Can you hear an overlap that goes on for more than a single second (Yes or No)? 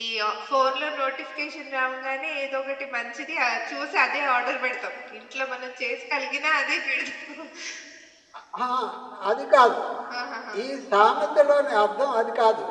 No